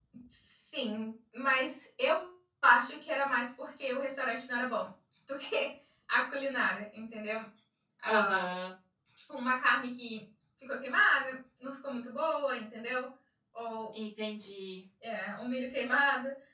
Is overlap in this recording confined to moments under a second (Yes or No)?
Yes